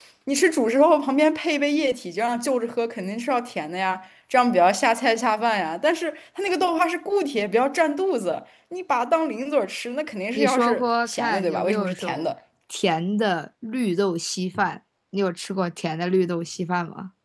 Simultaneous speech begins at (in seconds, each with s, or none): 10.3 s